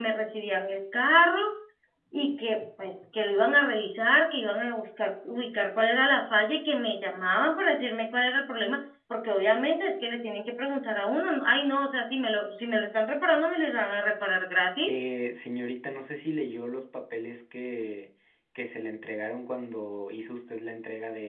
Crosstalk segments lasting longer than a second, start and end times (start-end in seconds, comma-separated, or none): none